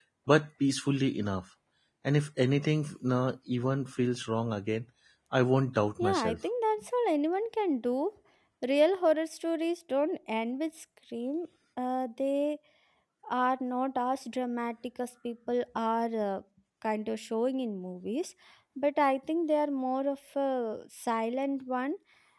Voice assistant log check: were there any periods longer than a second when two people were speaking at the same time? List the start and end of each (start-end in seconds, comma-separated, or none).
none